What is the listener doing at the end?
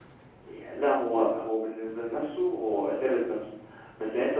listening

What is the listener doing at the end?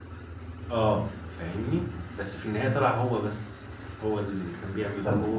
taking over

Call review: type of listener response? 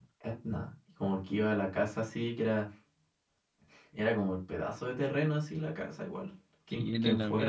taking over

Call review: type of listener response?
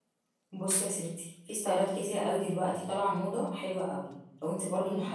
listening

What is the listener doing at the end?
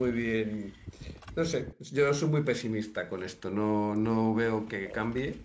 listening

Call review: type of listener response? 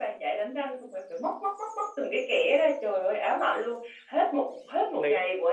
listening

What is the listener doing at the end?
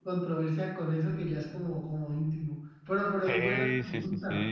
taking over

